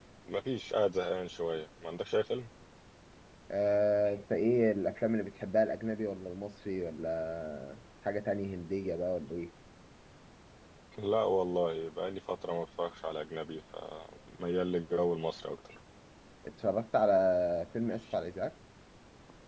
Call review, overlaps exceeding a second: none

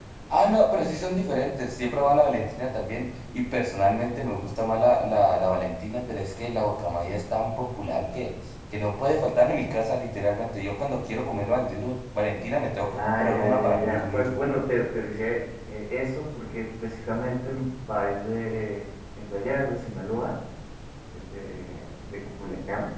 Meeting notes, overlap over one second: present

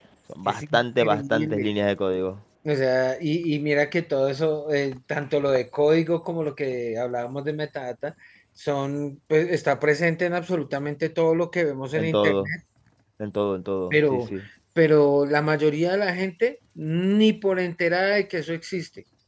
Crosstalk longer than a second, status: present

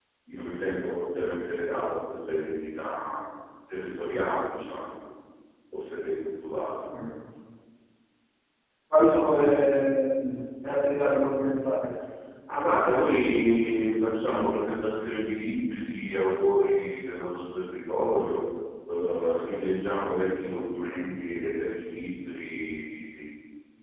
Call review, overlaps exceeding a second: none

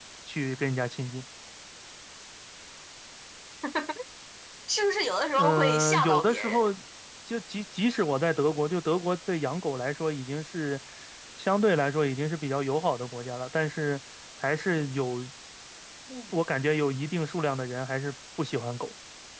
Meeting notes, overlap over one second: present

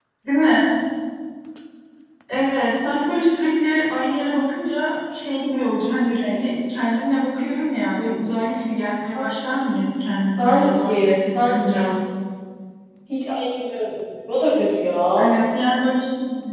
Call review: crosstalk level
present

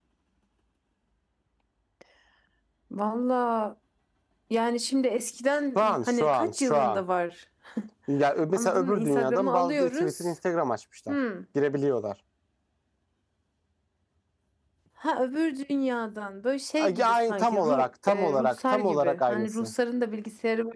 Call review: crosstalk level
present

